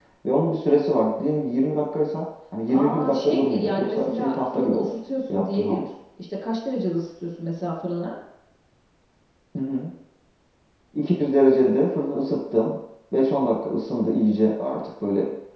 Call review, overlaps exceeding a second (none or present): present